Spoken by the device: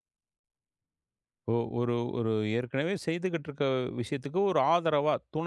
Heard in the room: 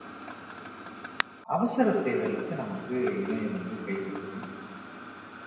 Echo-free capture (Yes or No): Yes